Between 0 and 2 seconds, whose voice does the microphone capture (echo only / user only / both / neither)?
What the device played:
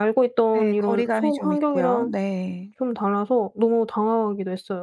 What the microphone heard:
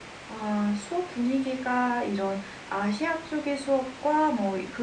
user only